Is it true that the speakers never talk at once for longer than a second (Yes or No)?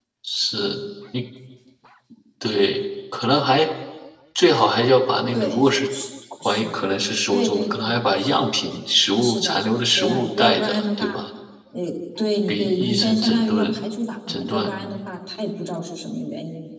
No